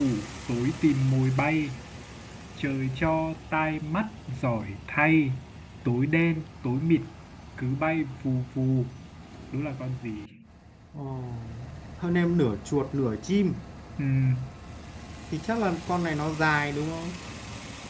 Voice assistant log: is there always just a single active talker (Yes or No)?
Yes